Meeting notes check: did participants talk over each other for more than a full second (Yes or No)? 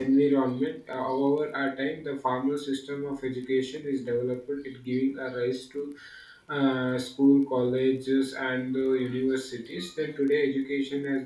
No